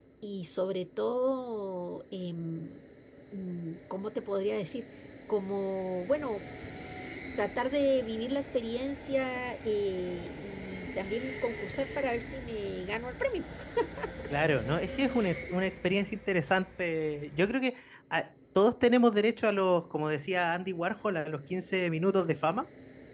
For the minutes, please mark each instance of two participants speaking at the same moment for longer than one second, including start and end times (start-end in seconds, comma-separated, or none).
none